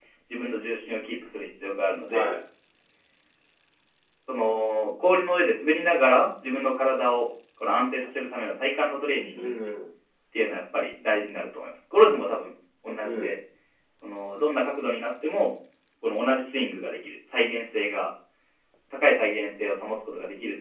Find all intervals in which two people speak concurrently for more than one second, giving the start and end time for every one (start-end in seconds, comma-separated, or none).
none